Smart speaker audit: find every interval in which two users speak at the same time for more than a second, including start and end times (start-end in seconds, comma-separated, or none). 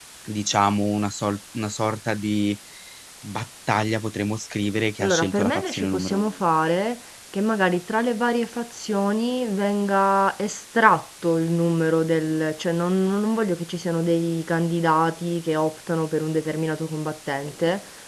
5.0-6.3